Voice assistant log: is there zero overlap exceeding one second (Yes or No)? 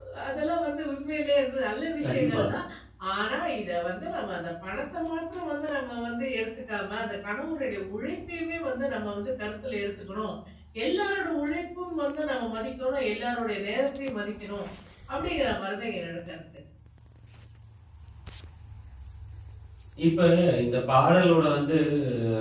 Yes